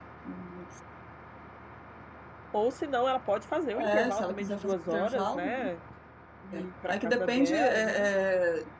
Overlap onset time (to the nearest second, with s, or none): 4 s